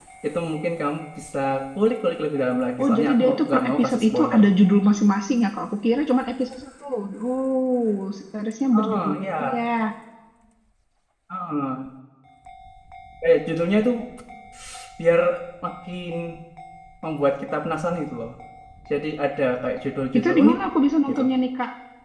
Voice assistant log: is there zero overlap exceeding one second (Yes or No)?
No